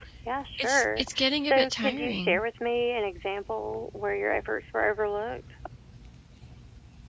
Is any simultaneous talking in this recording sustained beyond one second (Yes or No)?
Yes